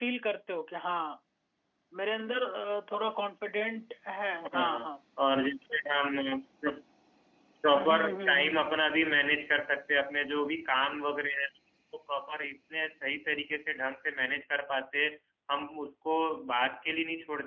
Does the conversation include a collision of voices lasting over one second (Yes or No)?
Yes